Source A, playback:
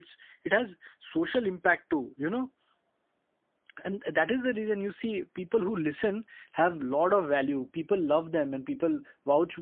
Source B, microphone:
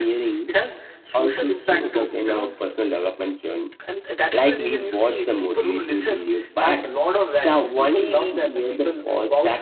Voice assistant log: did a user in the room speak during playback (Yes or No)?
Yes